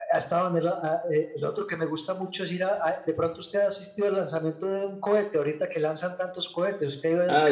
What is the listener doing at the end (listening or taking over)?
taking over